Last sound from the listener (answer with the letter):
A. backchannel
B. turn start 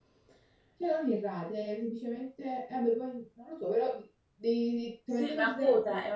B